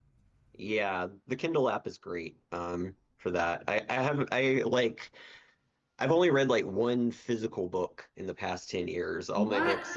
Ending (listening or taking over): listening